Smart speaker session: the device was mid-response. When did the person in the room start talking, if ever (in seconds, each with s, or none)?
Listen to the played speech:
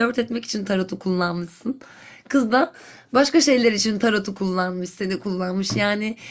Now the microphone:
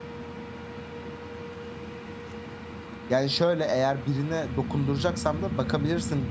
3.1 s